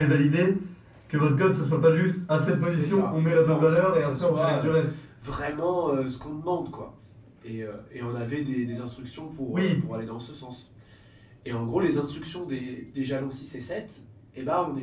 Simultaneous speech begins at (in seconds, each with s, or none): 2.7 s